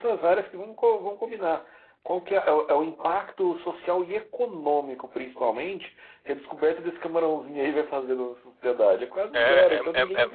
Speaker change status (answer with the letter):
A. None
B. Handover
B